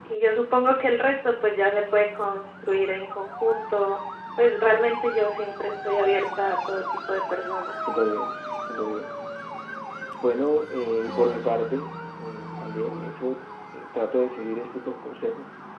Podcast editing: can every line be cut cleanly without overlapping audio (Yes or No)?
Yes